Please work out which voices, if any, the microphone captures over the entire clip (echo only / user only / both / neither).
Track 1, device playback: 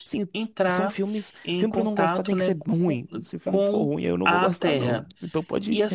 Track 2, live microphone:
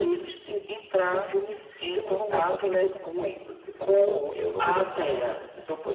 echo only